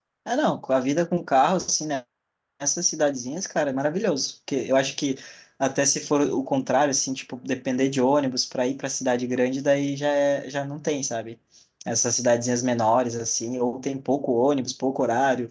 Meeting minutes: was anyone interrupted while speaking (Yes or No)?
No